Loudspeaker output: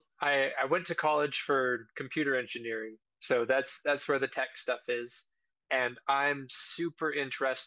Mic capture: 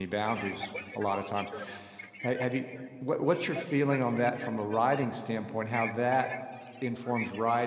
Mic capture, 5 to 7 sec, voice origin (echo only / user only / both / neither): both